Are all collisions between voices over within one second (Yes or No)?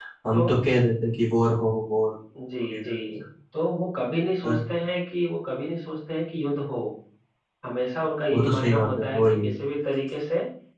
No